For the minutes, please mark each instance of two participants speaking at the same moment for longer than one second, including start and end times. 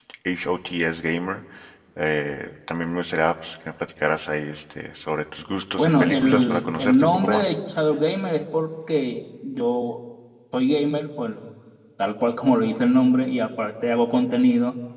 5.8-7.5

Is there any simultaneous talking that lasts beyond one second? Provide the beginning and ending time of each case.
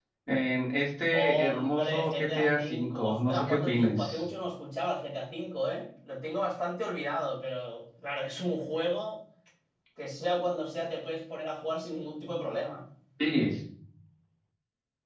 1.2-4.2

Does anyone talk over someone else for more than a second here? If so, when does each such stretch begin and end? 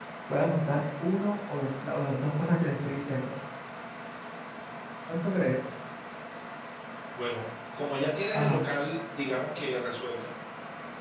none

